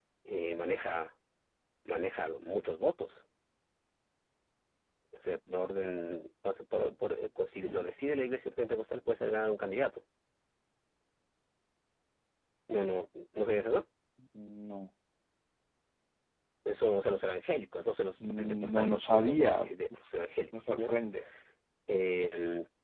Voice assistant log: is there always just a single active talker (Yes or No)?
No